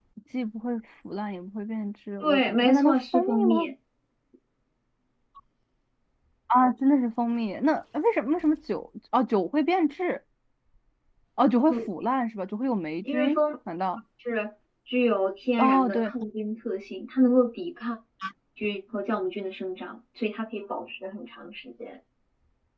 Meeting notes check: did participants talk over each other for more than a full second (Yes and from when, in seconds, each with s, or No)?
Yes, from 2.2 s